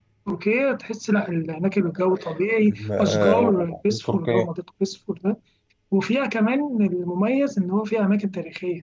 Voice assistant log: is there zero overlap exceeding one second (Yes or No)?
No